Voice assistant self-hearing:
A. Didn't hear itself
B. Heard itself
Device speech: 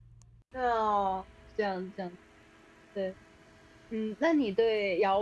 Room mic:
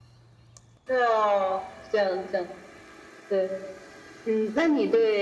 B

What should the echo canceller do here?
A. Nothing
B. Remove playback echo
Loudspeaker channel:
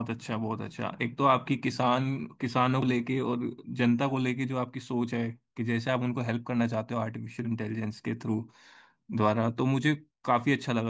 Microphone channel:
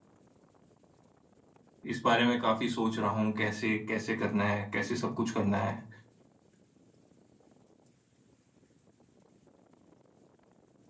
A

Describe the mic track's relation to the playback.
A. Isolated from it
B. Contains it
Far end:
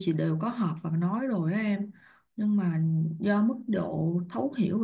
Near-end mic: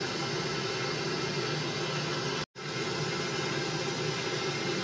A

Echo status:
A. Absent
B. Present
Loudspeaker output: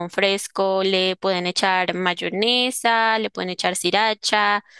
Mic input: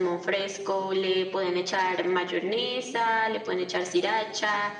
B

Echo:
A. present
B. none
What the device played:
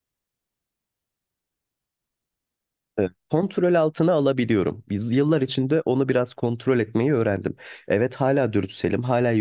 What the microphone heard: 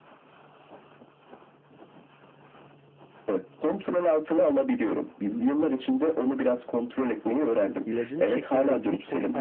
A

